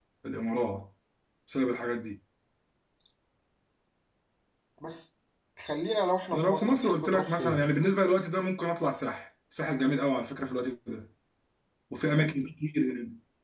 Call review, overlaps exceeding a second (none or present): present